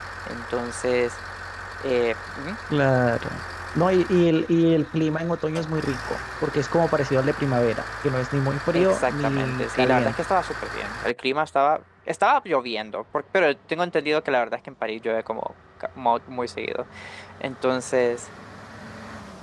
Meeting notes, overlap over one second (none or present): present